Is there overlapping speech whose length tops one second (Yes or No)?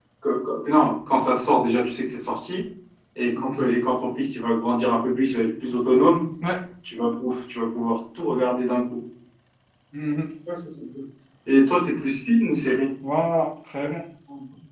No